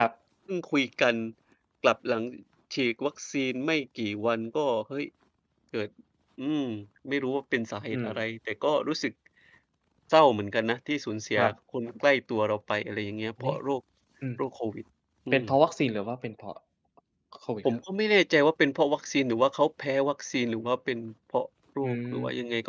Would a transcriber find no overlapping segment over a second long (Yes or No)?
Yes